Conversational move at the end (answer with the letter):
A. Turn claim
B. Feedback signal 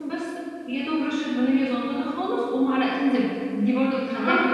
A